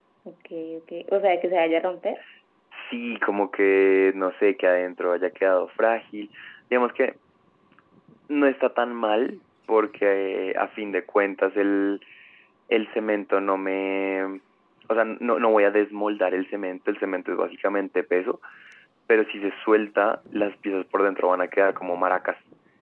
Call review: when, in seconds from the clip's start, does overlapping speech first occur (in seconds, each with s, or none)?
none